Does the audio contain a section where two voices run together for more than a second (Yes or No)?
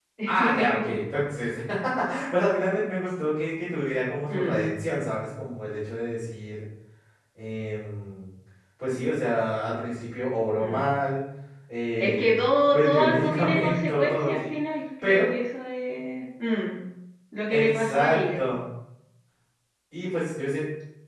Yes